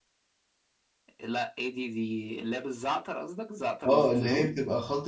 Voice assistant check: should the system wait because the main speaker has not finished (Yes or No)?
No